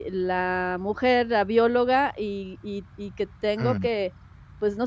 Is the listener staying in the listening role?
Yes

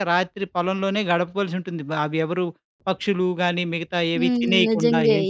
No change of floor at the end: No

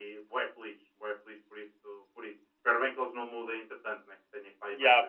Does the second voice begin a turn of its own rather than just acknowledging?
Yes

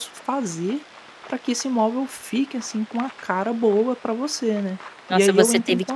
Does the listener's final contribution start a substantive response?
Yes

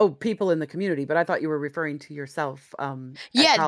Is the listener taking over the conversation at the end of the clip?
Yes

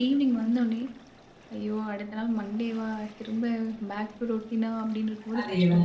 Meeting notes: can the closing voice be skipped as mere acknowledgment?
No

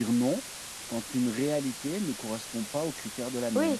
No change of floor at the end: No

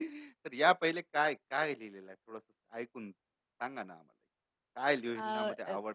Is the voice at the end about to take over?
No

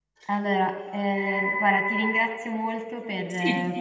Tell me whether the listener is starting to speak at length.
No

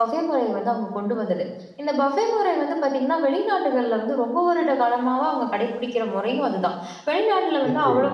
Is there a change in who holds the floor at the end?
No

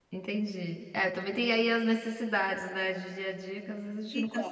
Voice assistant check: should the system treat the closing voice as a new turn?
Yes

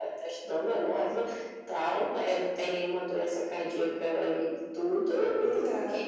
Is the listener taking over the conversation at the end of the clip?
No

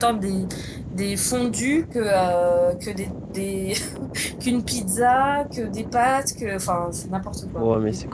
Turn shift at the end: Yes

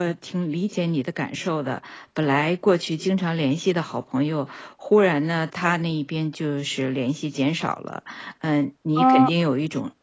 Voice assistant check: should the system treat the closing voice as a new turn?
No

